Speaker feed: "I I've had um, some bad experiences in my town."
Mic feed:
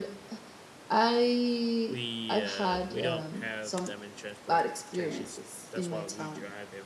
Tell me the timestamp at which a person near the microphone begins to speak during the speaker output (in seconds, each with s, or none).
1.9 s